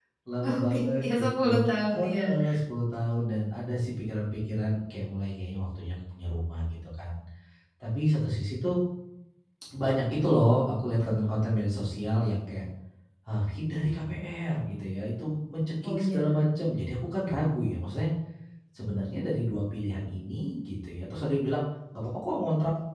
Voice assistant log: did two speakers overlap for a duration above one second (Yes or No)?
Yes